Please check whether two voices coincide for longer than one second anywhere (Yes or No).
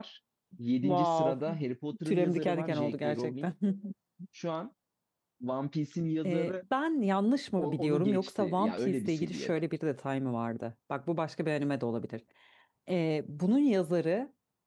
Yes